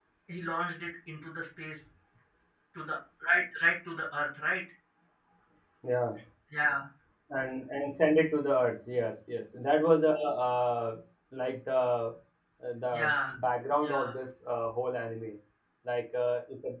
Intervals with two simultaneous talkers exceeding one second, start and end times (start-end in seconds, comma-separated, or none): none